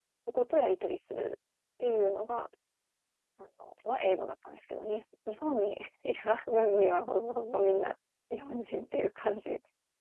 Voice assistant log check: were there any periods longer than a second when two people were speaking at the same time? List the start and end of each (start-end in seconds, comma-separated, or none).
none